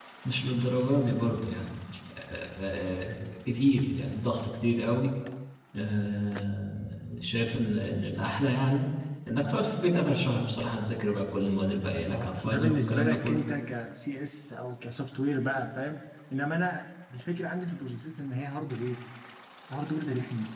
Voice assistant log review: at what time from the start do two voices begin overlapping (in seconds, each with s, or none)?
12.1 s